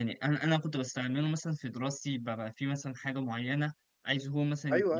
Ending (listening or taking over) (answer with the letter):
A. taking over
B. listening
B